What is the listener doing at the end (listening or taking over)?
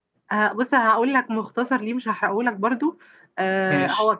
listening